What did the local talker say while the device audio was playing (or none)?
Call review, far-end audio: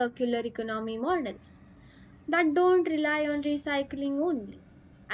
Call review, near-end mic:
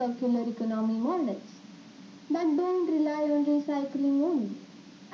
none